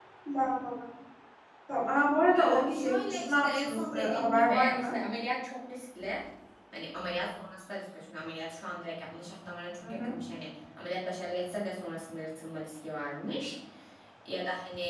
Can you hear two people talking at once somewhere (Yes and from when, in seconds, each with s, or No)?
Yes, from 2.4 s